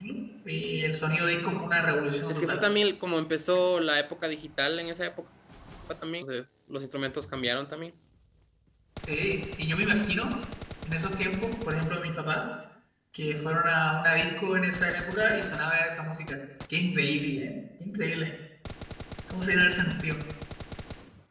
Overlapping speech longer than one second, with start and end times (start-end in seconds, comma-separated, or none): none